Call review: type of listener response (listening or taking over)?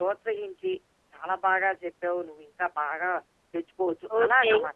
taking over